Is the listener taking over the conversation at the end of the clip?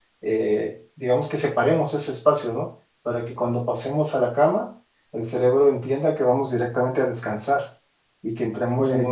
No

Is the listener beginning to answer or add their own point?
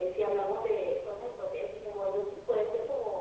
Yes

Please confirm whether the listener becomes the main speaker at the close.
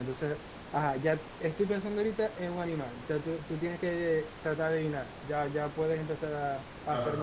Yes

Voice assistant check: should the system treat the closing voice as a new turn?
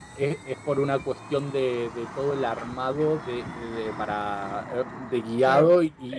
Yes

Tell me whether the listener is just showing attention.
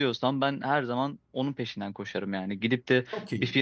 Yes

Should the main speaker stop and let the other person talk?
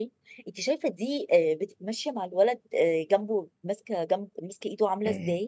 Yes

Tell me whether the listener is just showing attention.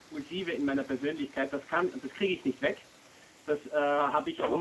Yes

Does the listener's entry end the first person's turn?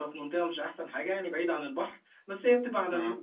No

